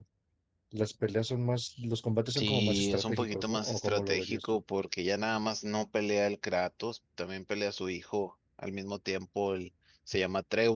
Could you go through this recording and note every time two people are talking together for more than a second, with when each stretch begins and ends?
2.3-4.6

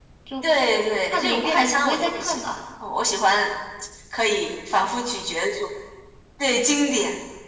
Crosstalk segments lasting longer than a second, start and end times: 1.1-2.6

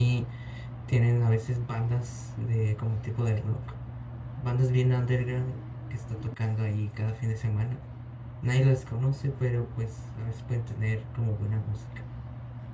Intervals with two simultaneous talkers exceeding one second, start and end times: none

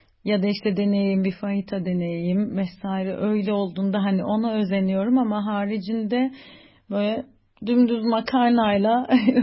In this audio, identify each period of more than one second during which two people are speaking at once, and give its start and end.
none

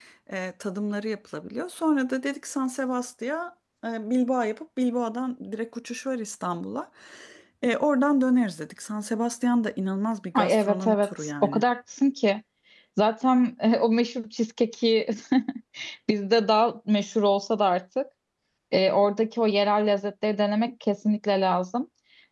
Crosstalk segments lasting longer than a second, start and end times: 10.3-11.6

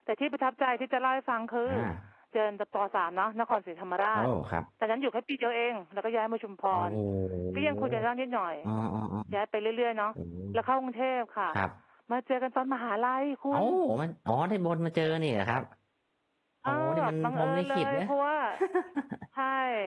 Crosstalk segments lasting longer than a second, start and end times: 16.7-18.1

